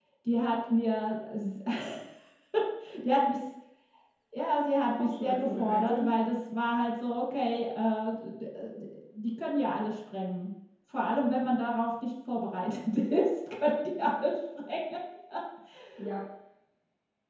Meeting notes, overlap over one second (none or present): present